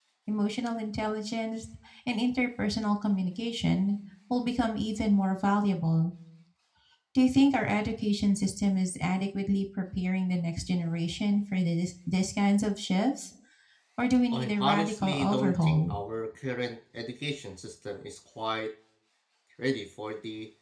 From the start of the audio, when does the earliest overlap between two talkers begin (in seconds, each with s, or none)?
14.3 s